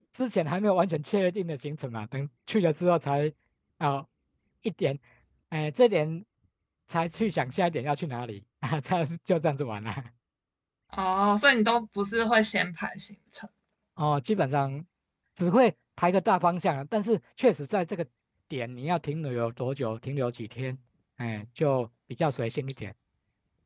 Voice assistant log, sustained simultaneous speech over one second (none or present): none